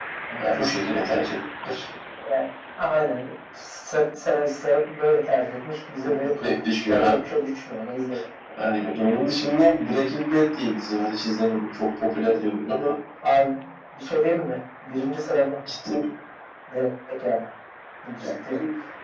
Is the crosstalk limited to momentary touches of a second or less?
Yes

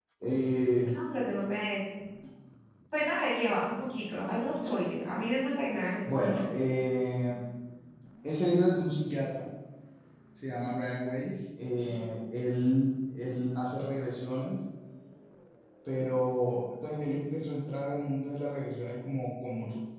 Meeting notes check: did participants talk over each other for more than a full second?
No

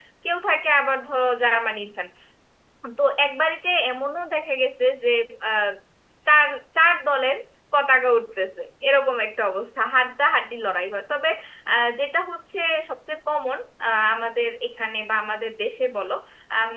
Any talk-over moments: No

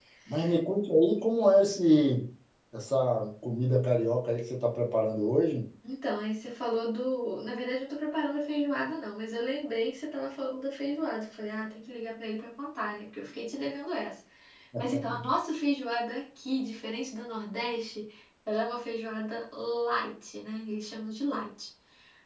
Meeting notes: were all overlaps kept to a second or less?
Yes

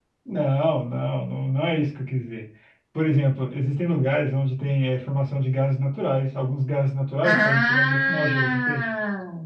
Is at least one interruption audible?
Yes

